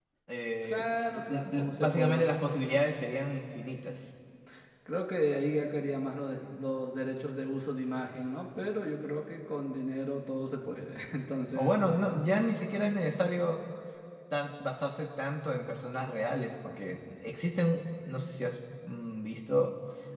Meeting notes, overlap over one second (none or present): present